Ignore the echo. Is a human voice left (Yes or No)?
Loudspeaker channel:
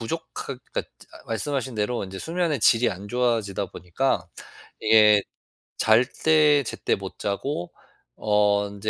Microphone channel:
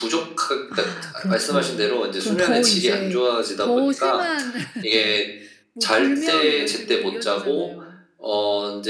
Yes